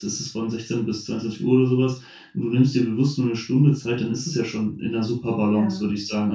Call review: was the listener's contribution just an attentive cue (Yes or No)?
Yes